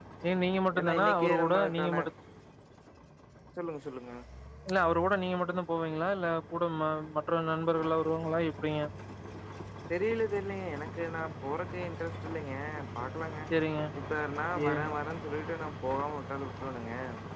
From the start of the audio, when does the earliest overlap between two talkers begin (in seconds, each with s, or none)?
0.8 s